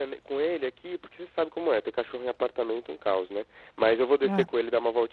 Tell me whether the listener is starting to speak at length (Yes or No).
No